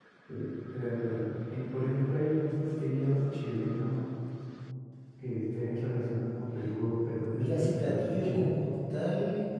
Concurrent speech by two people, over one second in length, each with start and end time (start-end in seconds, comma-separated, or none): 7.3-8.5